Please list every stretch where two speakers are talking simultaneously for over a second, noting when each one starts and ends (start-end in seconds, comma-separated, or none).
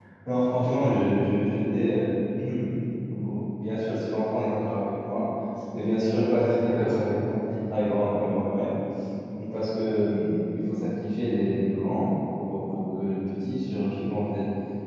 none